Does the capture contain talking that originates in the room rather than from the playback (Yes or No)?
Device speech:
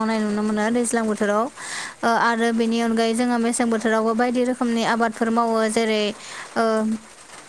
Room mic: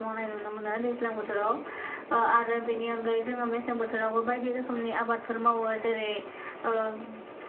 No